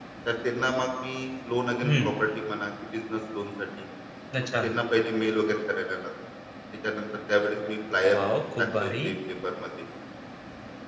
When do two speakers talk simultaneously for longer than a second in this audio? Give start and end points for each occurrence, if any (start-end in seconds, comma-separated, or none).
none